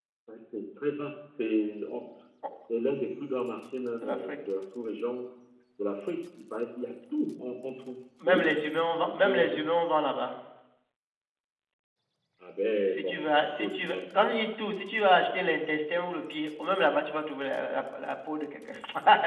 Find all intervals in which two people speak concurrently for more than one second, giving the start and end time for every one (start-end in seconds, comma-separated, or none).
12.8-14.3